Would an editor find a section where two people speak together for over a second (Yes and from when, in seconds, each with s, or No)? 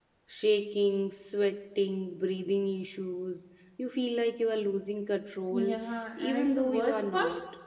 Yes, from 5.5 s